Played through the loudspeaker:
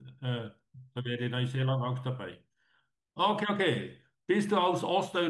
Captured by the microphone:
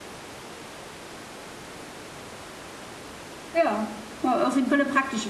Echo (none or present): none